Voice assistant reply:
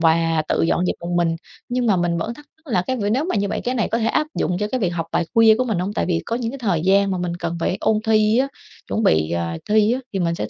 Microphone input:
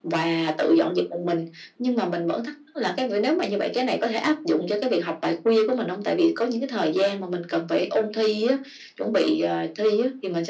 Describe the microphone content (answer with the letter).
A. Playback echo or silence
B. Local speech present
A